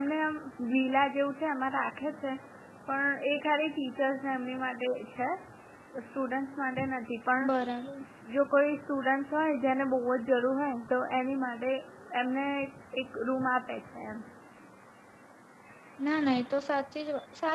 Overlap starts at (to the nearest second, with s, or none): none